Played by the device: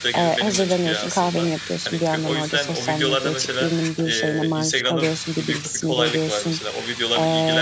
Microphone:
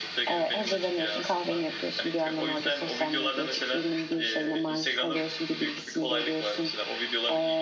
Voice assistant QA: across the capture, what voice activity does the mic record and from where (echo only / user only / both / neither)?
echo only